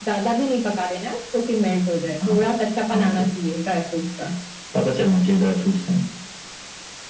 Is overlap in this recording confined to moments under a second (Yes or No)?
Yes